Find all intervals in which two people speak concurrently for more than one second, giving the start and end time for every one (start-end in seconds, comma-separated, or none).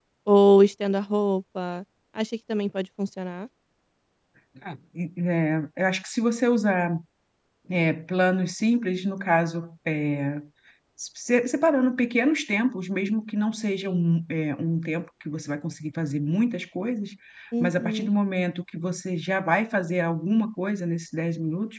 none